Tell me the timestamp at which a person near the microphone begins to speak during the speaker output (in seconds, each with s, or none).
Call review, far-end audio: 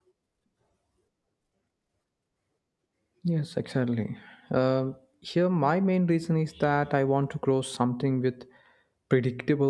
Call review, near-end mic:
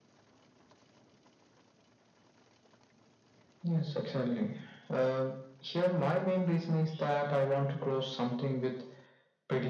none